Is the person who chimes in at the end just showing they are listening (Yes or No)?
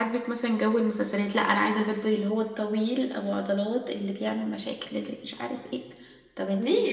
No